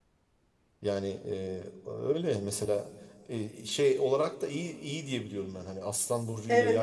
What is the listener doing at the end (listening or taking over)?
taking over